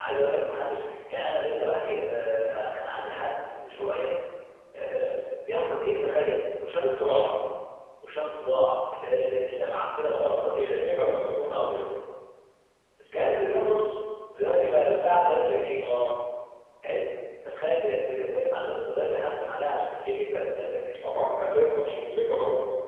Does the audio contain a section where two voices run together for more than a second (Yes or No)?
Yes